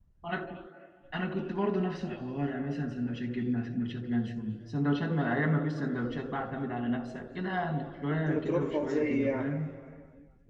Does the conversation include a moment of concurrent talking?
Yes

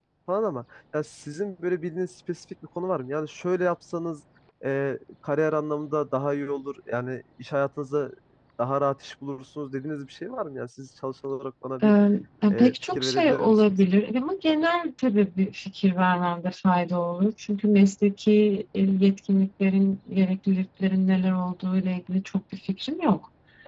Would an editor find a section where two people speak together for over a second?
Yes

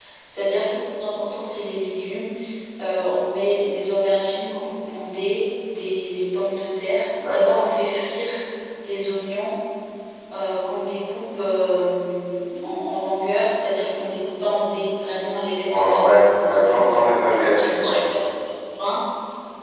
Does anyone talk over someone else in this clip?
Yes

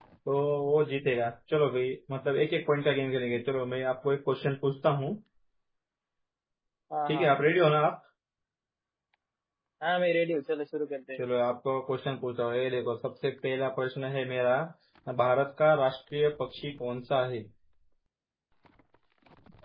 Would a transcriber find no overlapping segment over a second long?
Yes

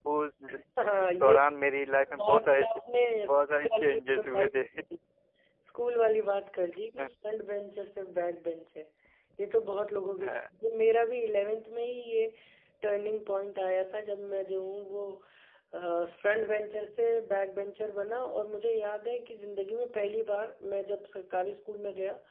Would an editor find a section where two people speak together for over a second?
Yes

